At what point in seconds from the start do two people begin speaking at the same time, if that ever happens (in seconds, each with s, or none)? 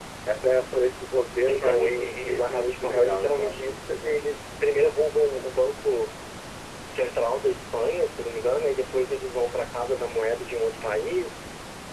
1.5 s